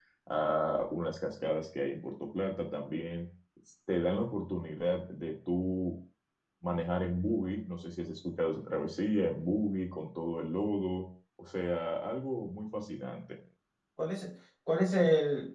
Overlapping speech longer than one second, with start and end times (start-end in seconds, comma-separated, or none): none